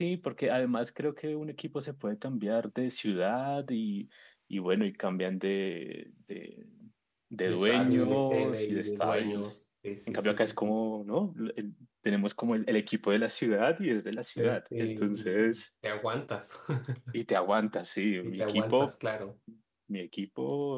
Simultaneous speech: Yes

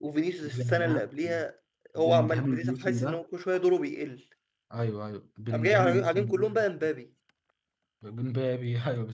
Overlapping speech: Yes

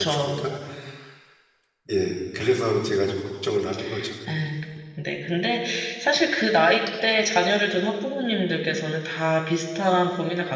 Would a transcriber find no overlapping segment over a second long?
Yes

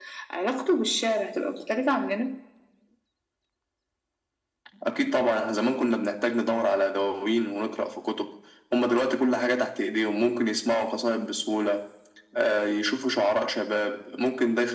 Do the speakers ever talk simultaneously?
No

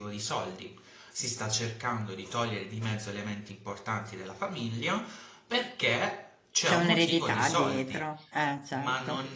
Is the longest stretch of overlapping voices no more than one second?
No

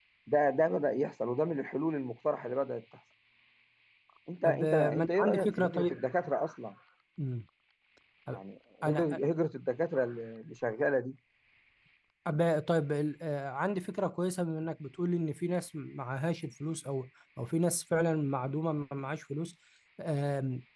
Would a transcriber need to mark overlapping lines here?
Yes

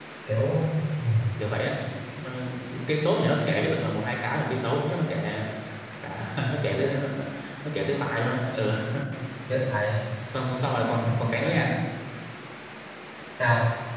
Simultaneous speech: No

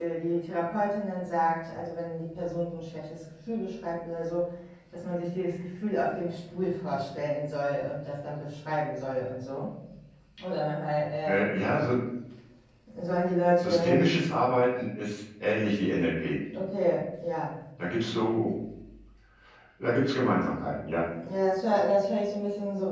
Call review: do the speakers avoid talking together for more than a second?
Yes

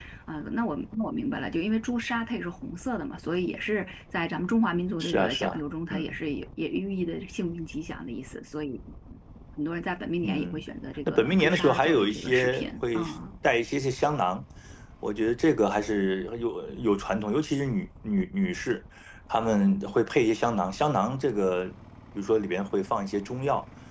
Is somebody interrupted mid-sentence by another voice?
Yes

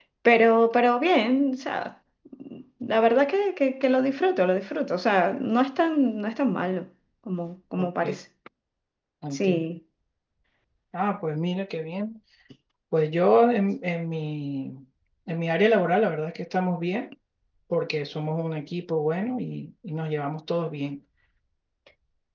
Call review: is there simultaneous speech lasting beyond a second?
No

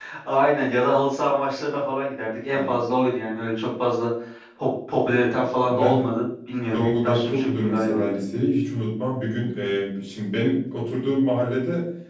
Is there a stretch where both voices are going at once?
Yes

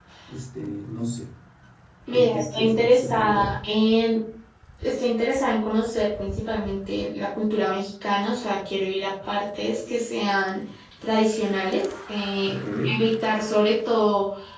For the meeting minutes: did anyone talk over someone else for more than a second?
Yes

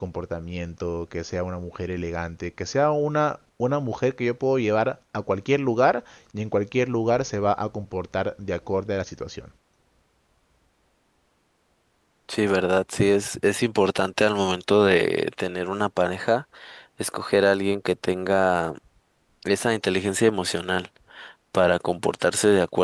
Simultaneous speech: No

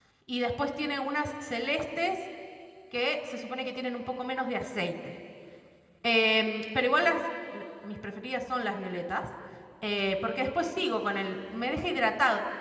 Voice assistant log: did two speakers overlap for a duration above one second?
No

